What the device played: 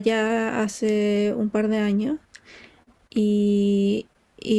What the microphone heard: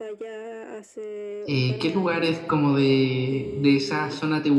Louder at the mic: user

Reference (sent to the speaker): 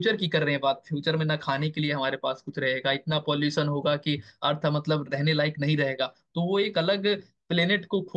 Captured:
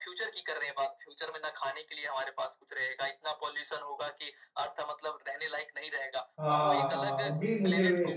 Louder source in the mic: user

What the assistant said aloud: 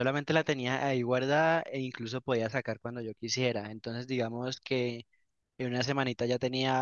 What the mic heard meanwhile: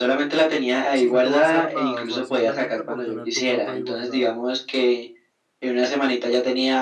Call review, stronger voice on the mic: echo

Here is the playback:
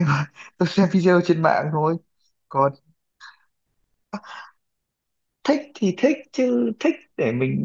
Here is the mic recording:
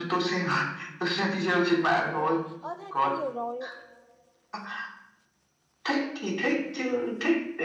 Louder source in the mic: echo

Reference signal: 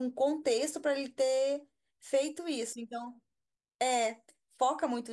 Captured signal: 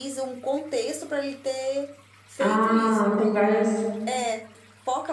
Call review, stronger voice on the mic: user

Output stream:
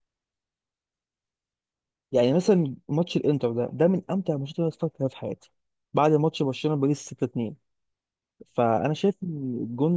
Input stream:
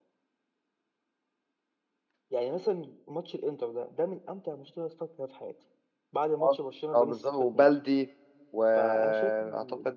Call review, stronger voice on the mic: user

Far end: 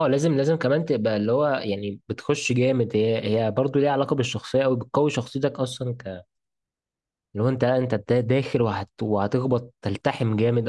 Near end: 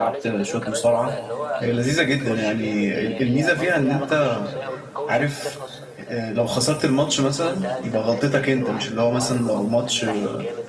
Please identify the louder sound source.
user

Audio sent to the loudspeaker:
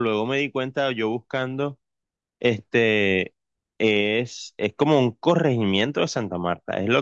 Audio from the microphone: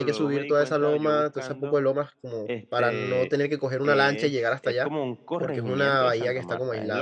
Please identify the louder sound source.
user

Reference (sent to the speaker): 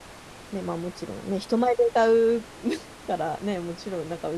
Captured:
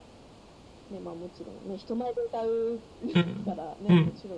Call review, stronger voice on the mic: user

